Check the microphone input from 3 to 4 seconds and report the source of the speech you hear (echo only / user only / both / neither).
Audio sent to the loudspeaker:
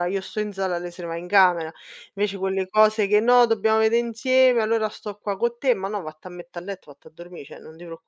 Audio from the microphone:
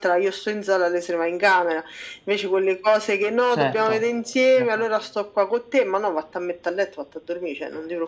both